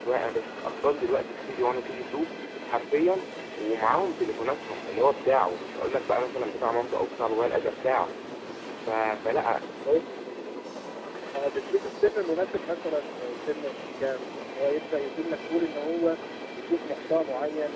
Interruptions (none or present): none